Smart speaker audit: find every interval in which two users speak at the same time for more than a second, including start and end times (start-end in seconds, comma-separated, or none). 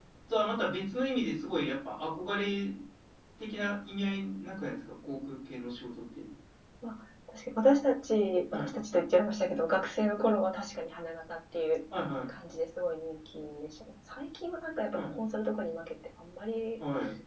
none